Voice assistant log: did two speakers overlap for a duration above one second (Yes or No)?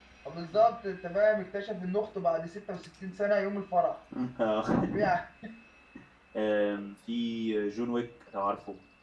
No